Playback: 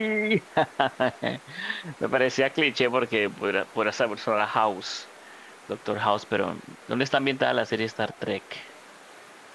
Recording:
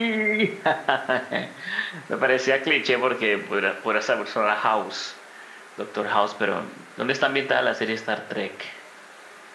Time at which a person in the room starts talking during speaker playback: none

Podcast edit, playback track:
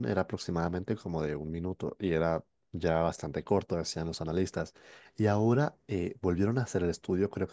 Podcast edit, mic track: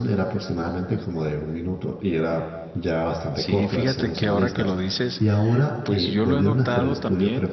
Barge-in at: 3.4 s

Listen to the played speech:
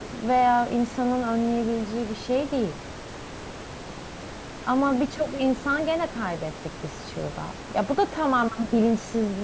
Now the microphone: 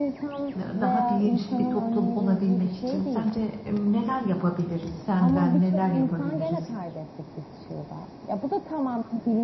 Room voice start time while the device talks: 0.6 s

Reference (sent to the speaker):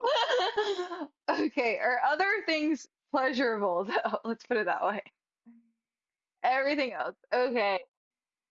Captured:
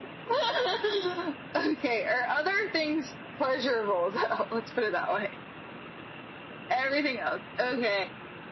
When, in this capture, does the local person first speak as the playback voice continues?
none

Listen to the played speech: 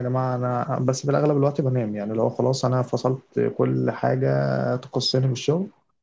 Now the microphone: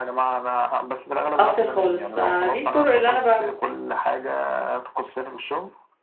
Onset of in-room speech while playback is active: 1.4 s

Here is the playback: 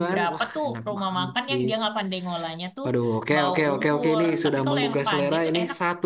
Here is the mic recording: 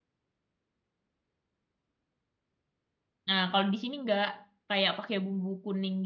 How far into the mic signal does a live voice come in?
3.3 s

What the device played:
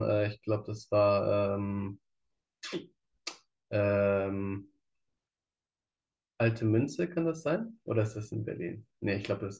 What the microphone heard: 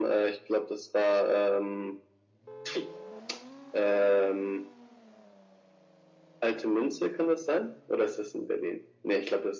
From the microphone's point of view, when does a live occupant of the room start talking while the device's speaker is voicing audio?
none

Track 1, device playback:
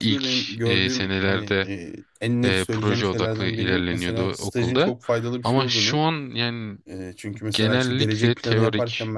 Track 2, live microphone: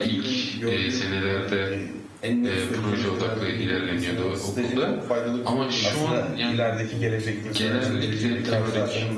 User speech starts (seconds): 5.8 s

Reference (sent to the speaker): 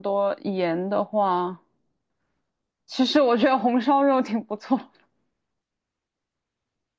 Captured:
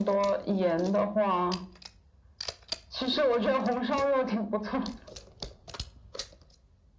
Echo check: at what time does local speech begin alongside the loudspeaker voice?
none

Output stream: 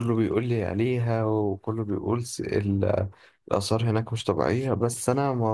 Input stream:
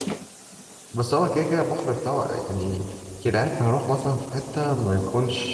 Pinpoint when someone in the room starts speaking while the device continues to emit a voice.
0.9 s

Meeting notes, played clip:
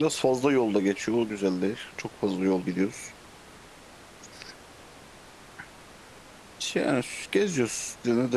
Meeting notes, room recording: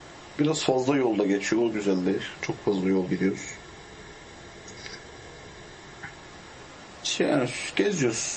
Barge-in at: none

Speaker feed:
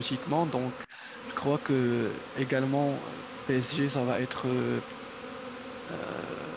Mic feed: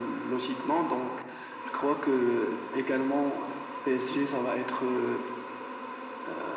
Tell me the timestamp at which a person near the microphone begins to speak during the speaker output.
none

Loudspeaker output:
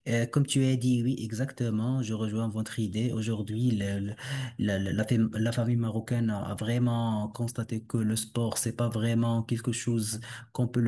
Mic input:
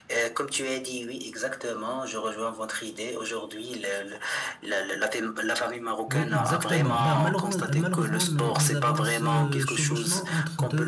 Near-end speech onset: 6.1 s

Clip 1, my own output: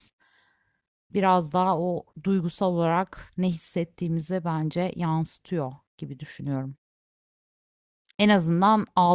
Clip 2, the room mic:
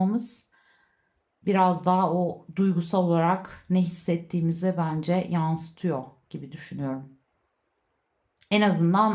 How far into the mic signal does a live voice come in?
none

